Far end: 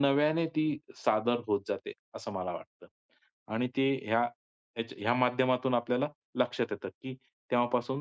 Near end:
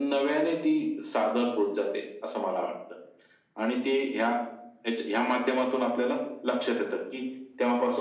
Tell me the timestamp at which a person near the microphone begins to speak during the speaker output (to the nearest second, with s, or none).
none